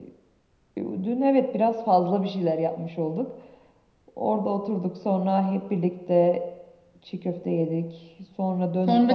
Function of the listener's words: taking over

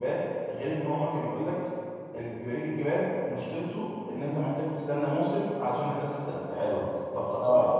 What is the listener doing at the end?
listening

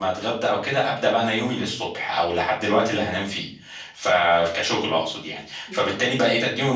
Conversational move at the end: listening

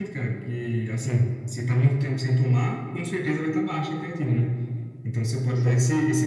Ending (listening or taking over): listening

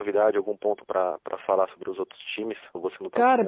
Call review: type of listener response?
taking over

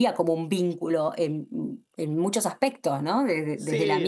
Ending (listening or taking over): listening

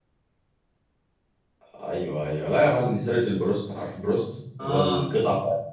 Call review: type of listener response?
listening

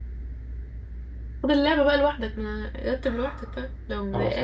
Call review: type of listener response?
taking over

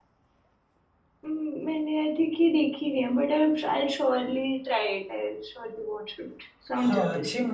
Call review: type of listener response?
taking over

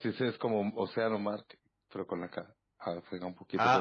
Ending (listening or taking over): taking over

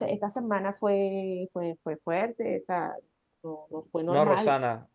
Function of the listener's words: taking over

